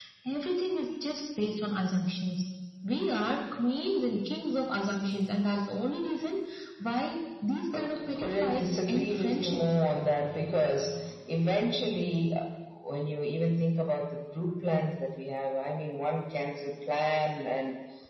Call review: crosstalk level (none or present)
present